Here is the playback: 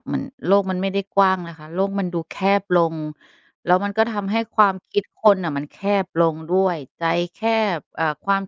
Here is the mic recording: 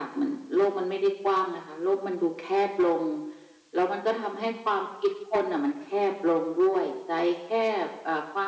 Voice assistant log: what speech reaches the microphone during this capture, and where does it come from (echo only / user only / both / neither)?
echo only